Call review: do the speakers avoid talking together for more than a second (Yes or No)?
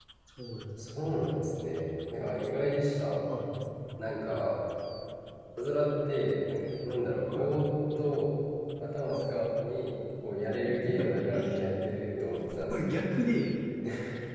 Yes